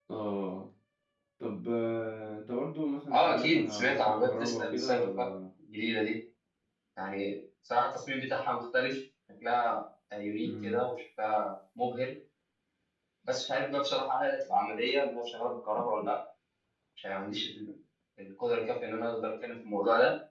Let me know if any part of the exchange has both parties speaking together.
Yes, from 3.1 s

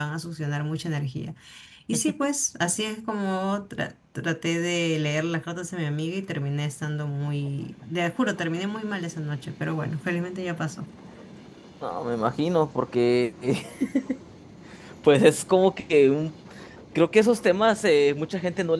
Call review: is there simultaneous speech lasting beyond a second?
No

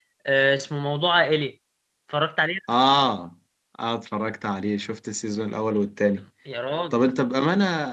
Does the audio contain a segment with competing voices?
No

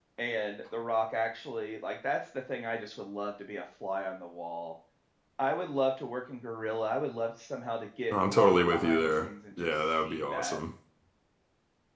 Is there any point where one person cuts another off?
Yes, from 8.1 s

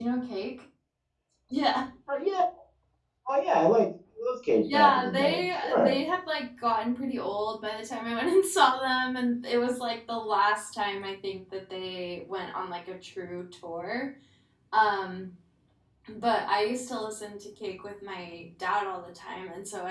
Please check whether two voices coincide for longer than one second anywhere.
Yes, from 4.7 s

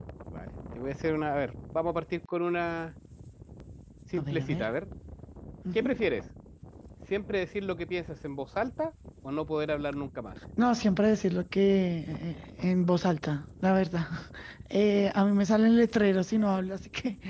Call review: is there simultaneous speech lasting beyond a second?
No

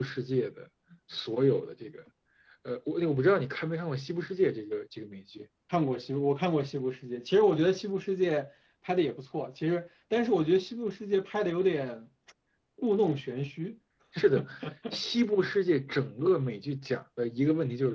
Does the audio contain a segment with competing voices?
No

